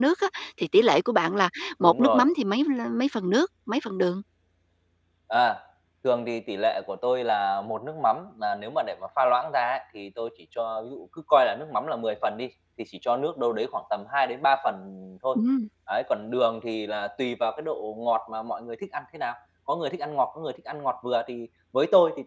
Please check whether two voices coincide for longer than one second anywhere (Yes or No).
No